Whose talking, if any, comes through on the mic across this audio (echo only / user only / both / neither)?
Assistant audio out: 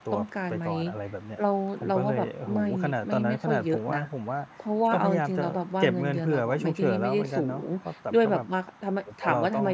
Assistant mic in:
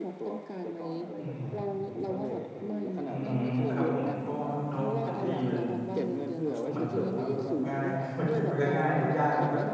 both